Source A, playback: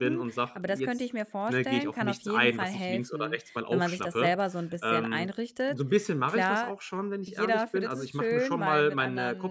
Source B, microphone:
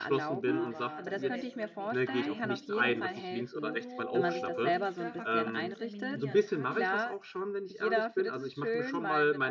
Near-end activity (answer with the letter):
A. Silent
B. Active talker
B